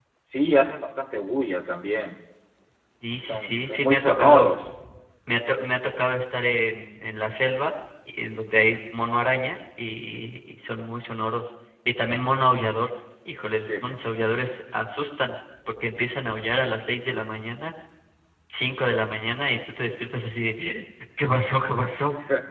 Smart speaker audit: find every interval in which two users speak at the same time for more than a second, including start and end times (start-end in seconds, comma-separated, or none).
3.3-4.5